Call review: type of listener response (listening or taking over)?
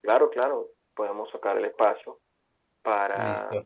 listening